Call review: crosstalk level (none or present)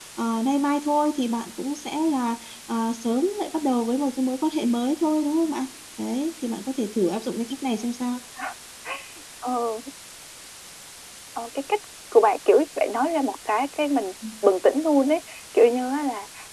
none